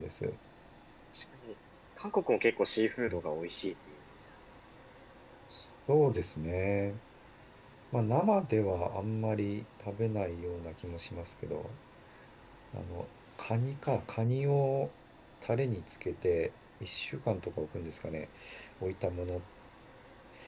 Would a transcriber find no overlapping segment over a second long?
Yes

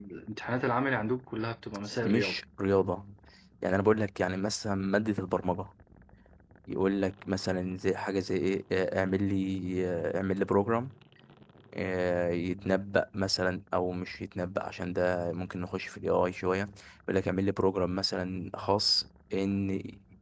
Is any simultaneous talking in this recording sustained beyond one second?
No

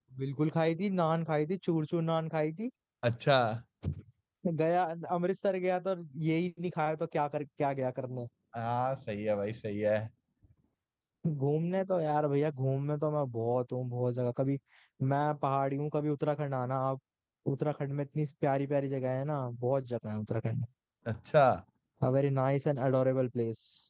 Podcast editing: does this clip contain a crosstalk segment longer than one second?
No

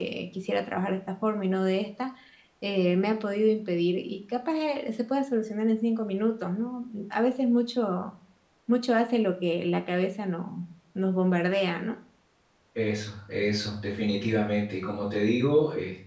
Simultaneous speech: No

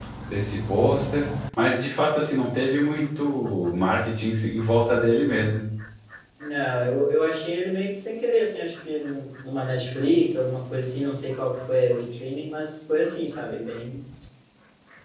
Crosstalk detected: No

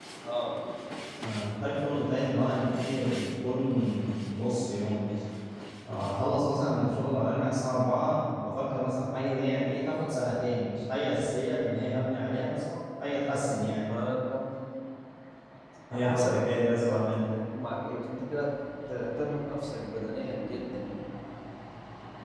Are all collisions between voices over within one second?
No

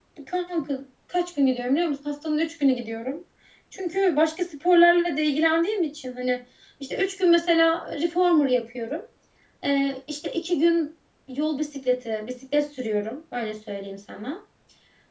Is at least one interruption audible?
No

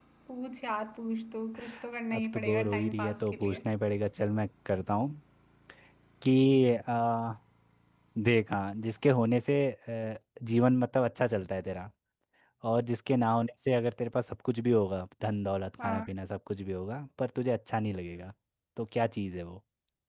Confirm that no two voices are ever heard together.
No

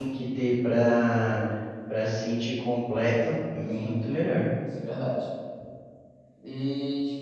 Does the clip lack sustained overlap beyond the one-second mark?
Yes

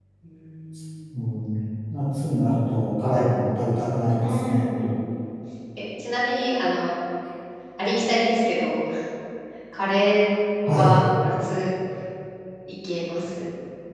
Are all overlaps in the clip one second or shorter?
Yes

